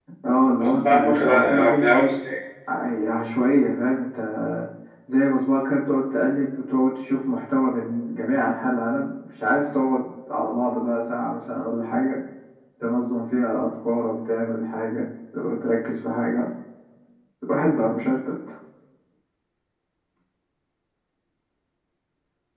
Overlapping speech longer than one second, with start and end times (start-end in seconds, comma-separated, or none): 0.6-2.1